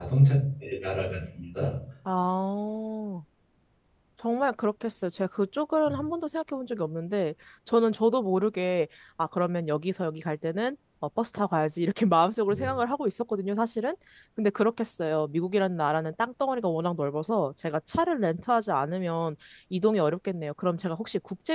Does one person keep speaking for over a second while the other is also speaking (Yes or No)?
No